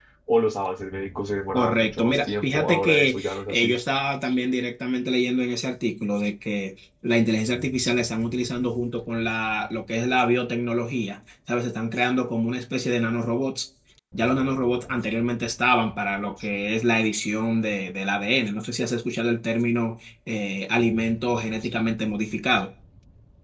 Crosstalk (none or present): present